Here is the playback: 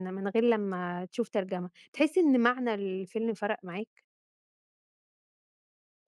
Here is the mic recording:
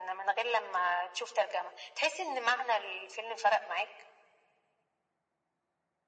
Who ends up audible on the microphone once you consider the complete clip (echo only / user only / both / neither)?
echo only